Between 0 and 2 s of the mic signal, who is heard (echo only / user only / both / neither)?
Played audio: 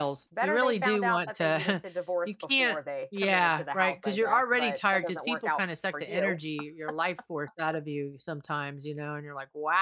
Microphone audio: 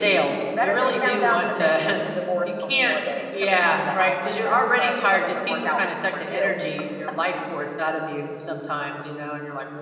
echo only